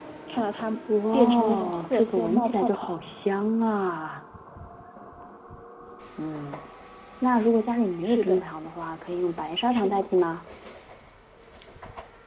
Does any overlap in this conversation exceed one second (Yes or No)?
Yes